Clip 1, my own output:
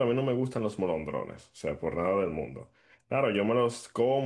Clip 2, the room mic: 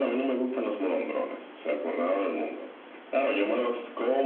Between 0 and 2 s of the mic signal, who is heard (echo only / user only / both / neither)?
echo only